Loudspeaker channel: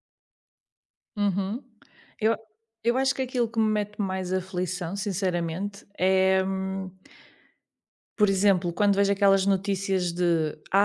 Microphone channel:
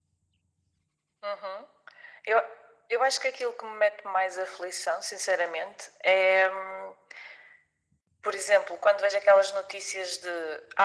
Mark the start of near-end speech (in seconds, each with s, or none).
none